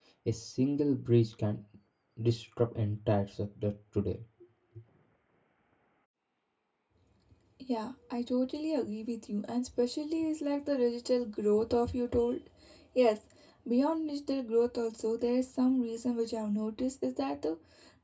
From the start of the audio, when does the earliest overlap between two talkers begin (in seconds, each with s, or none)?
none